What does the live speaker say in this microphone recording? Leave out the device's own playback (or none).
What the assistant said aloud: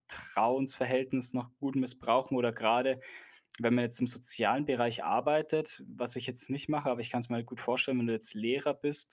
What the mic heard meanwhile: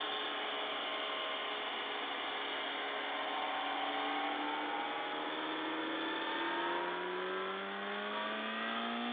none